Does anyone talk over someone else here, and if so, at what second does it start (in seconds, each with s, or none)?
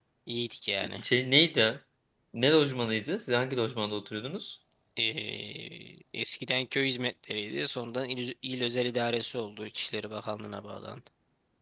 none